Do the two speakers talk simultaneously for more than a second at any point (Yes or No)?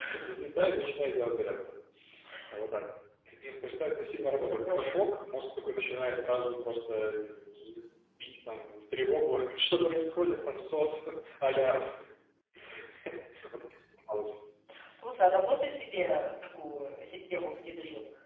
No